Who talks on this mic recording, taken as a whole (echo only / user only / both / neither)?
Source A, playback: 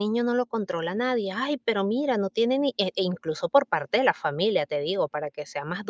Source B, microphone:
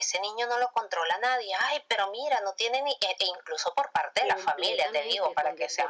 both